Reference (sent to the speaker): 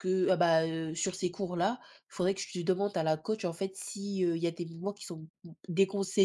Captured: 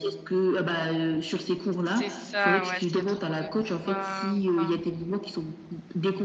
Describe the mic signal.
both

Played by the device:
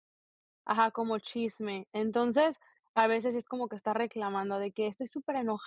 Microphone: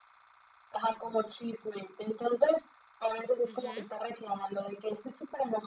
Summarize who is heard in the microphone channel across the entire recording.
both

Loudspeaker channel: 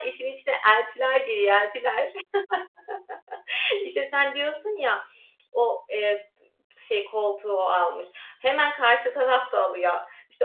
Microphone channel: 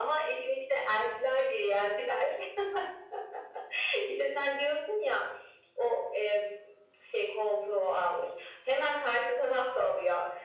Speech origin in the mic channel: echo only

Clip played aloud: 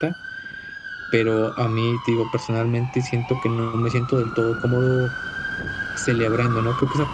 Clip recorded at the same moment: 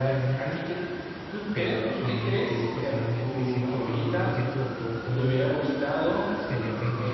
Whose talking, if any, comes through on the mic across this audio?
both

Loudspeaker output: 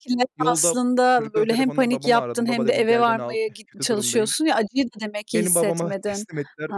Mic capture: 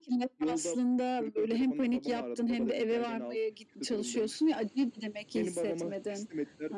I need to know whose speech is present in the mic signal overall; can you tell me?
echo only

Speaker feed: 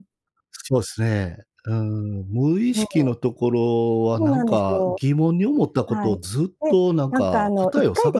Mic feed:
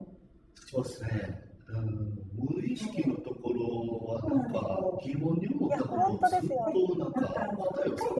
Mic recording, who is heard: both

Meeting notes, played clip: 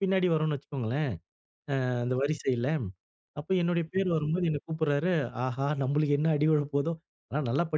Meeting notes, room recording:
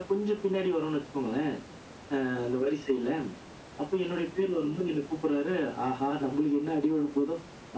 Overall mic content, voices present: echo only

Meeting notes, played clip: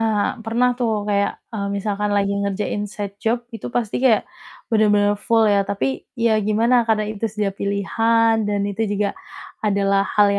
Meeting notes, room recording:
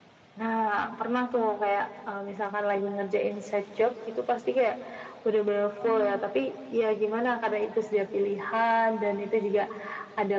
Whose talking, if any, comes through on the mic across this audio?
both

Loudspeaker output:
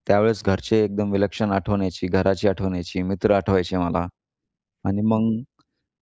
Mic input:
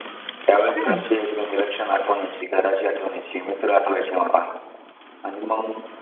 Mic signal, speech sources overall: both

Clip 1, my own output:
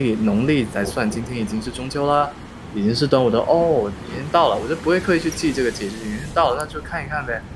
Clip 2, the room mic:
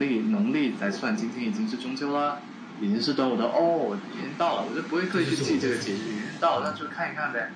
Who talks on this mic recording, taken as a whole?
both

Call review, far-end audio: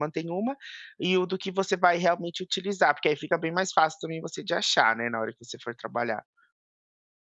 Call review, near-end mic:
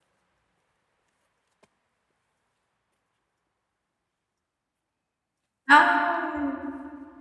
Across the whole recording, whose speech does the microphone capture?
user only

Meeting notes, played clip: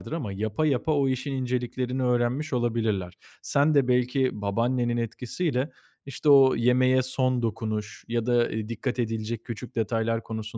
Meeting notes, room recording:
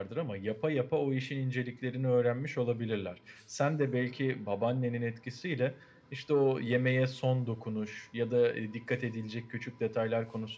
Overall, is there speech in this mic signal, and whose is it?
echo only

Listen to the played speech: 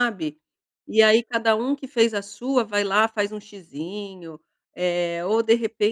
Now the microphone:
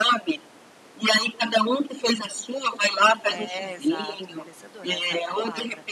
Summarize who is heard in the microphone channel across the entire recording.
both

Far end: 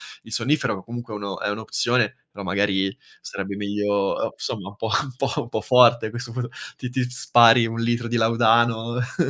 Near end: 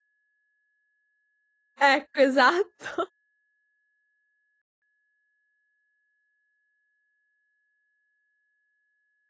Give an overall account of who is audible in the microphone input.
user only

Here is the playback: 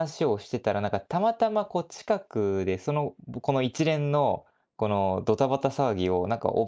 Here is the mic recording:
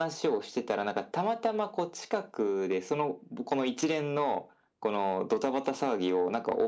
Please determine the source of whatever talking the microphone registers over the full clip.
echo only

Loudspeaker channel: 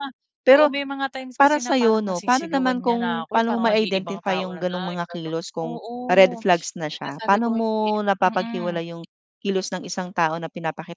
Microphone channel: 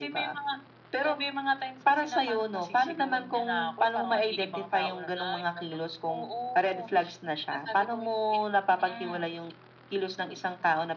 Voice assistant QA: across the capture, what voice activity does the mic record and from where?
echo only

